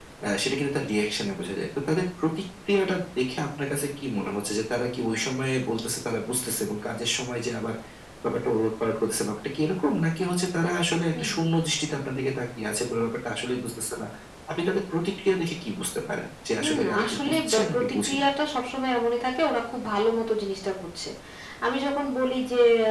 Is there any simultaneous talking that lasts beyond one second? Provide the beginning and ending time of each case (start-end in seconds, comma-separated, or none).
16.6-18.3